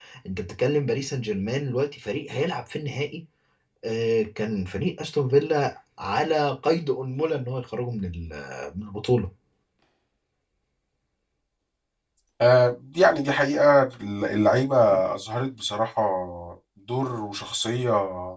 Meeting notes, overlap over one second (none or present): none